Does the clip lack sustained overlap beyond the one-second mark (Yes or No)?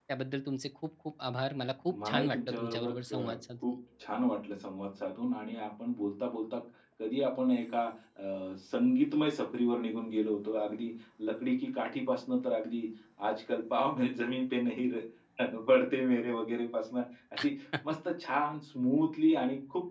No